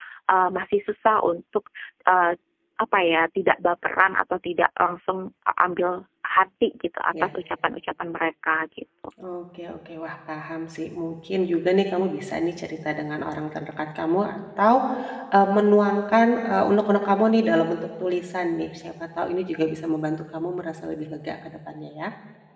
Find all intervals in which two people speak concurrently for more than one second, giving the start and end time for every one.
none

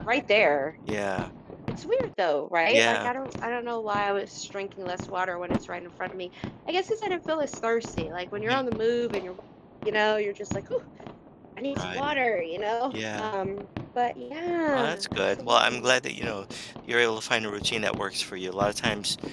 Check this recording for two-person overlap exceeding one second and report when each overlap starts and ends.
14.7-16.0

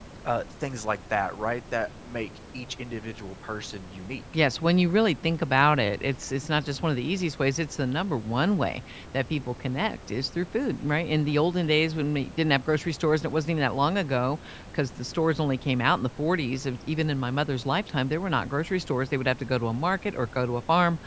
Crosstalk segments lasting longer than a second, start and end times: none

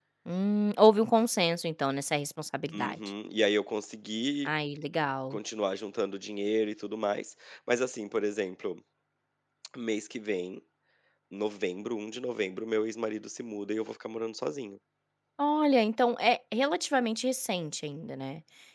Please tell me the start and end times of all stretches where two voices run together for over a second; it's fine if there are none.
none

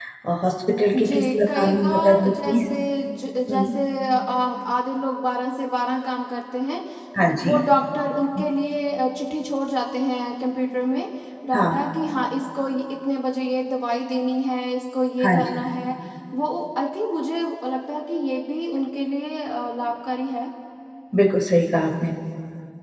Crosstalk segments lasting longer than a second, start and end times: 0.9-2.6

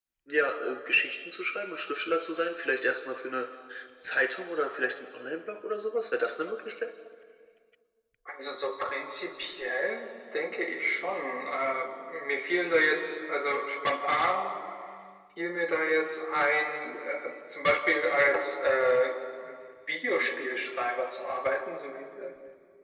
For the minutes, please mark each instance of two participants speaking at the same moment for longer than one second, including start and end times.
none

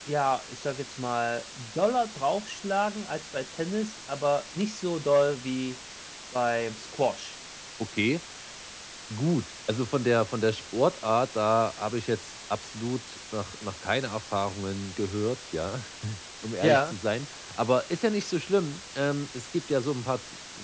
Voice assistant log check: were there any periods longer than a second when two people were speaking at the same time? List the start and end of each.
none

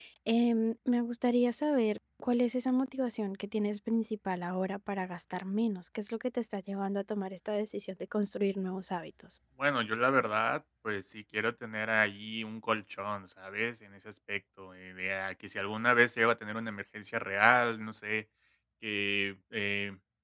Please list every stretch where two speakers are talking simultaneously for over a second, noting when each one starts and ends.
none

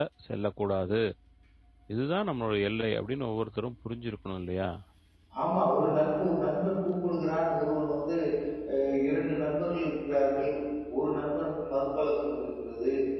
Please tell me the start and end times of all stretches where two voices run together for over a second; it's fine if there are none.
none

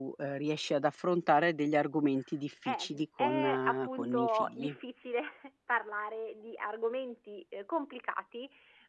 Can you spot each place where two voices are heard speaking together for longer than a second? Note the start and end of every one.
2.6-4.7

